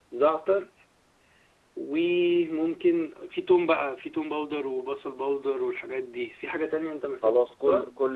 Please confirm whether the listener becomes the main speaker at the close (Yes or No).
Yes